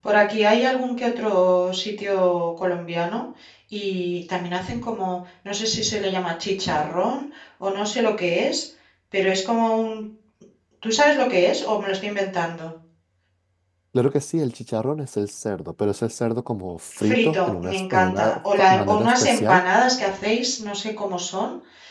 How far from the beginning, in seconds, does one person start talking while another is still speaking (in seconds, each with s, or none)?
16.9 s